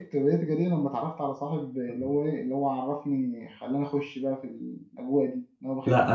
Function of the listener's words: taking over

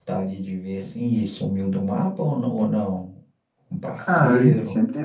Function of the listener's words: taking over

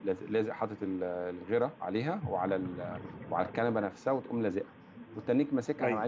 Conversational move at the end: listening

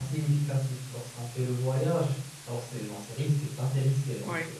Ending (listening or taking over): listening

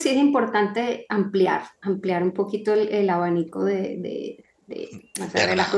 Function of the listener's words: listening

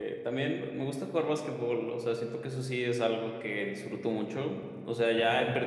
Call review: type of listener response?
listening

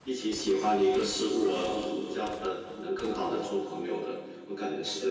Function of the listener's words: taking over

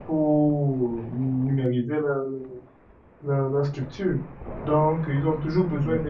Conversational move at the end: listening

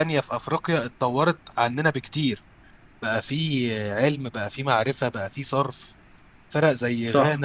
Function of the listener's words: listening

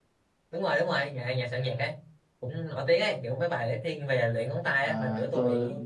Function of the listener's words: taking over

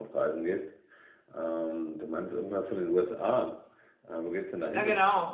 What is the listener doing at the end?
taking over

